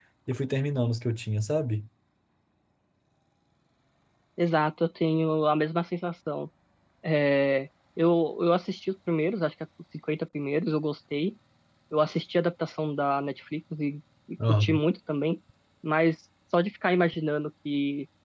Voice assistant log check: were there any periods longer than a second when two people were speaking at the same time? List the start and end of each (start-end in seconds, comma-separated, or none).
none